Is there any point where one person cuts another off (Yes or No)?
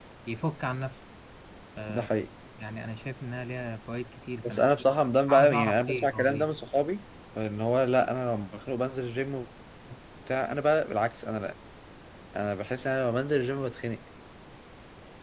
Yes